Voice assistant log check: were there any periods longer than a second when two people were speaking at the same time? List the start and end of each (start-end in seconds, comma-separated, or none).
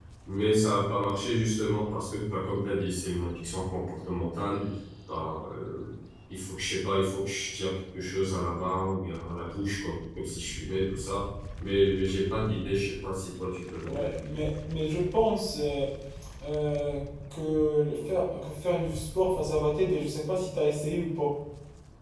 none